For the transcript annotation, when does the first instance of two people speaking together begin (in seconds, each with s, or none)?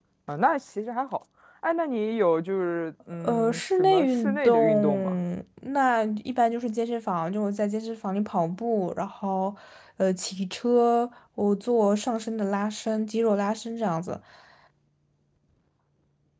3.2 s